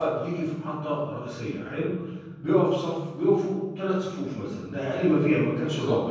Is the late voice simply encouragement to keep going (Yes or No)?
Yes